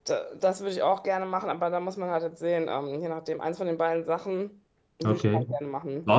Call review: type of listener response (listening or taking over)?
taking over